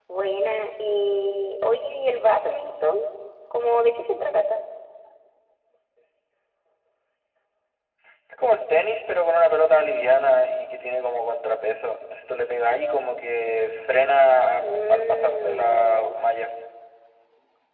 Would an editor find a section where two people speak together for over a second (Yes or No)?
Yes